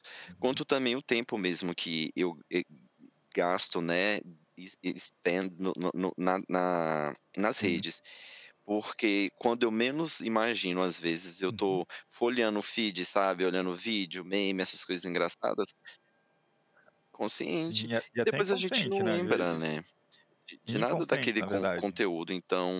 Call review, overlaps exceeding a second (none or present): present